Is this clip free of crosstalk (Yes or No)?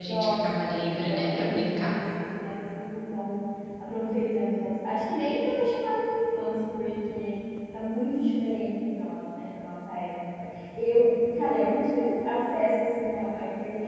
No